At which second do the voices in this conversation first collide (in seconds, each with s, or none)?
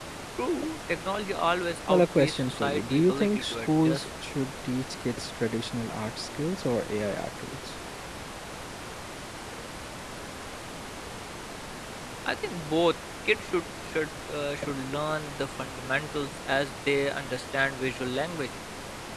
1.9 s